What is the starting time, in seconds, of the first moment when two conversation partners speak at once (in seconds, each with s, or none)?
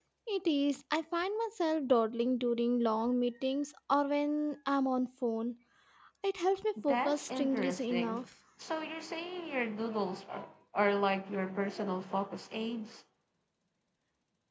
6.8 s